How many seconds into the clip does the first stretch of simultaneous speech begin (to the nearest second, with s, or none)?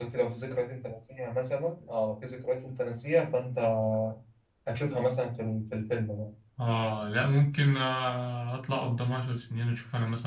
none